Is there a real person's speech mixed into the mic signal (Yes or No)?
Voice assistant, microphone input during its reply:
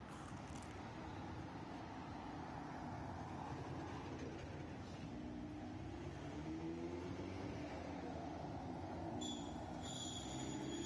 No